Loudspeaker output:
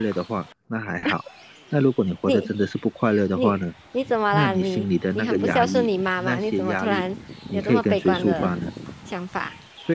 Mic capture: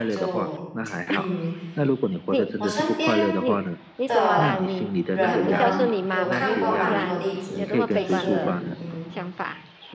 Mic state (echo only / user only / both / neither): both